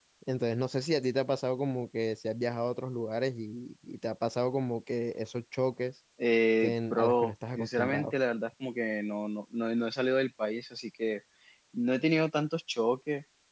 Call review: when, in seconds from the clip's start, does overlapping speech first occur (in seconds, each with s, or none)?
6.6 s